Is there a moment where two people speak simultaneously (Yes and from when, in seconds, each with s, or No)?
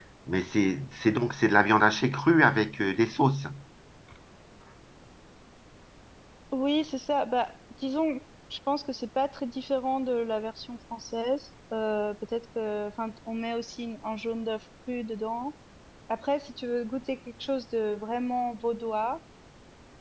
No